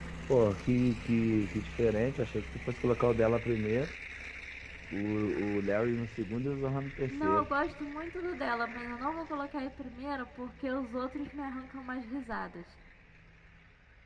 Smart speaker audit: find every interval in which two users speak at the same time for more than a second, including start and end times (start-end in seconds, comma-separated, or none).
none